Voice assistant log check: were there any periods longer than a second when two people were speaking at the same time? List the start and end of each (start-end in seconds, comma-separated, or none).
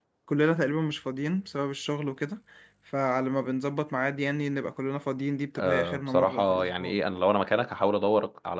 5.6-6.9